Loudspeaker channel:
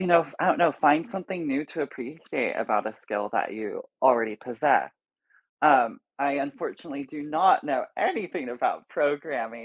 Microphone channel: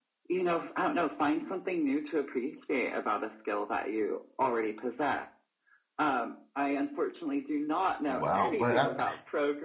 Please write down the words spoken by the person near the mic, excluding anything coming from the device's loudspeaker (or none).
wow, but, ah